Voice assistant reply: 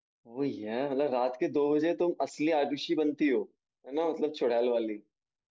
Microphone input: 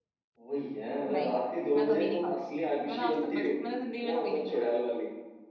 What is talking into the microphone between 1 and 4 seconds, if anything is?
both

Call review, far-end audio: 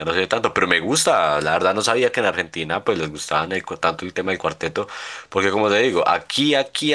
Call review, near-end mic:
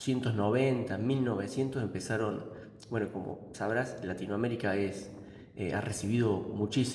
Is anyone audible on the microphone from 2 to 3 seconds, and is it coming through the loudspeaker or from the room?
user only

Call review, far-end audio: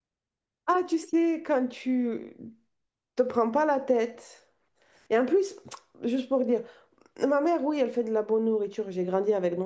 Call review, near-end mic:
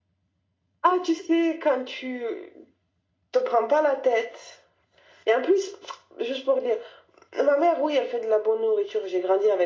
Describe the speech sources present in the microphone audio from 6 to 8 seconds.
echo only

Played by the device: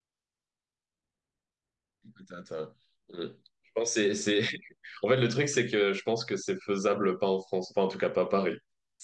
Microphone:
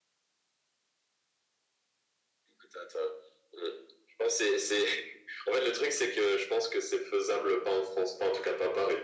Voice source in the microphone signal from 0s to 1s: neither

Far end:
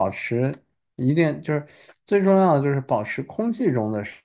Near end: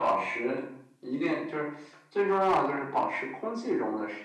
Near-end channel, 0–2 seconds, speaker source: echo only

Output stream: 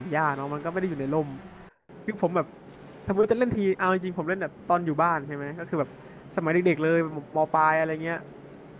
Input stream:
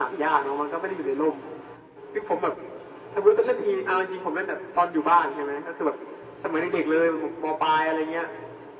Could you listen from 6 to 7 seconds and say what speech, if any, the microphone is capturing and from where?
echo only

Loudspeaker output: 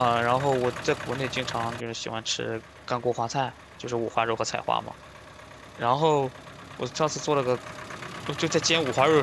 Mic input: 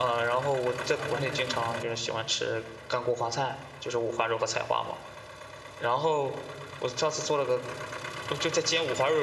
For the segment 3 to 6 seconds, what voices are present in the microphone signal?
echo only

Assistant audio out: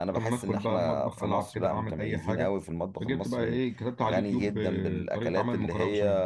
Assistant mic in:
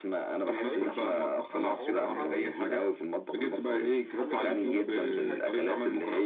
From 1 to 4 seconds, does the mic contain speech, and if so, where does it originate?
both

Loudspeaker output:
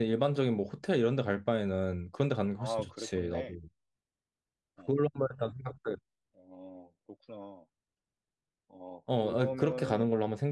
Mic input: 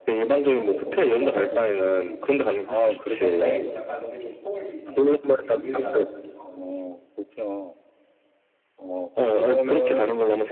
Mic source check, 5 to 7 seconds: both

